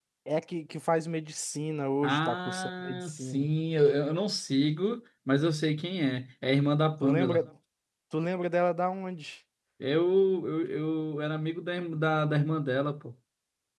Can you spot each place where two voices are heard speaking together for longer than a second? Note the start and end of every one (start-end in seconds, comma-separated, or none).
2.0-3.5